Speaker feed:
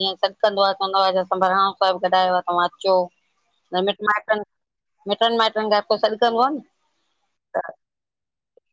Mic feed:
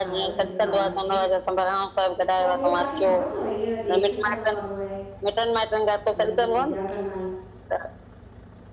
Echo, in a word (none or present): present